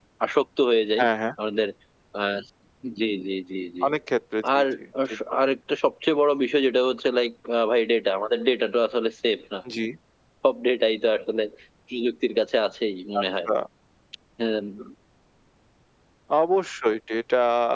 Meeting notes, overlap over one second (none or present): none